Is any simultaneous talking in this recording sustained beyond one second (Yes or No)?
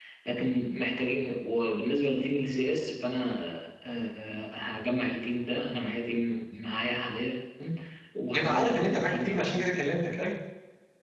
Yes